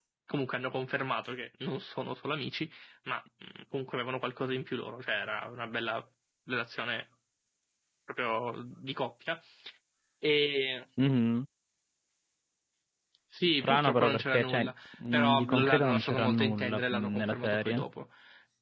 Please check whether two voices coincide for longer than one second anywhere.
Yes, from 13.4 s

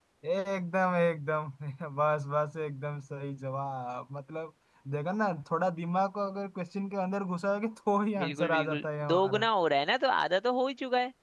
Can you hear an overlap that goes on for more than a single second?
Yes, from 8.2 s

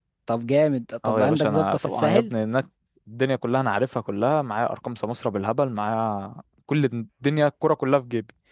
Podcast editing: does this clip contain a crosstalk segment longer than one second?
Yes, from 1.0 s

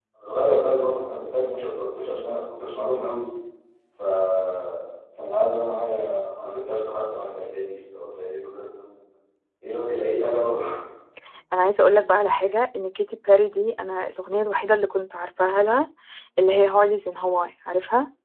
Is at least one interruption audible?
No

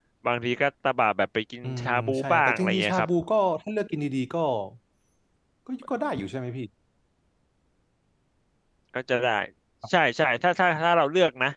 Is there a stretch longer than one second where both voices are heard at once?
Yes, from 1.6 s

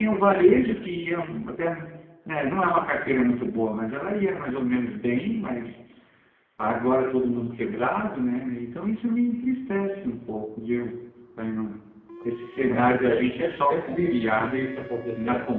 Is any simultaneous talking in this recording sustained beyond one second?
Yes, from 12.6 s

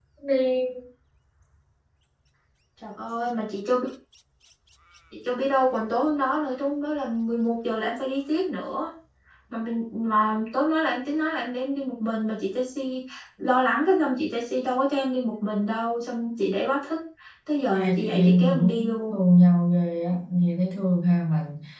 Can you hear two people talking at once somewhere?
Yes, from 17.7 s

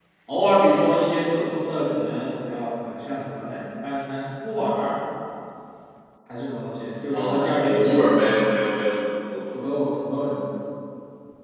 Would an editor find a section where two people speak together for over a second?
Yes, from 7.1 s

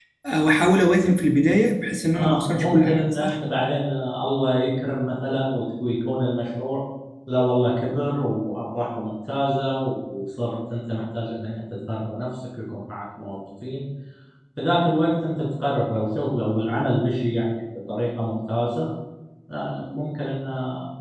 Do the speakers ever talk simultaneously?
Yes, from 2.1 s

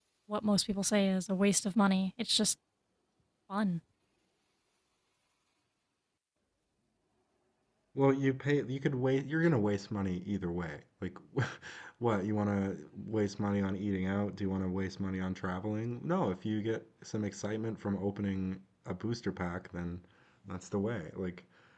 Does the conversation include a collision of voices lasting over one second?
No

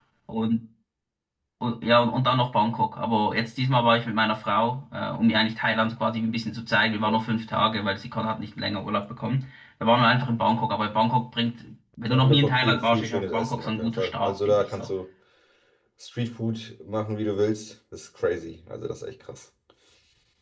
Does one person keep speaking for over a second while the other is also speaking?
Yes, from 12.1 s

